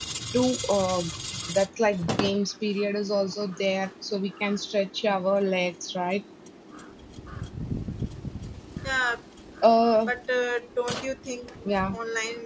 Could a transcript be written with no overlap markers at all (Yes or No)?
Yes